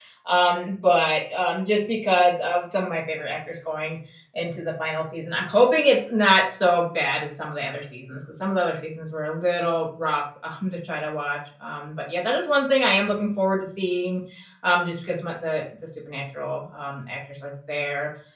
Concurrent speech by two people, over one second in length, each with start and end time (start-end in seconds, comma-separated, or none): none